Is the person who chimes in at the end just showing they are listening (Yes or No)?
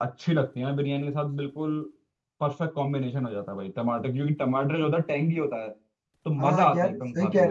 No